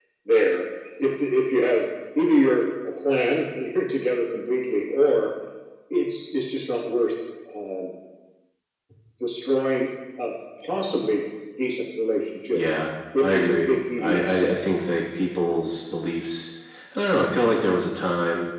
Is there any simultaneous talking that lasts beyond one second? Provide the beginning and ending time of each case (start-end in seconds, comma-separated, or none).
13.2-14.6